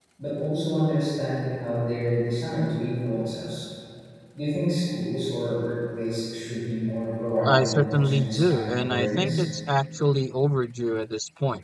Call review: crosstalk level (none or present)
present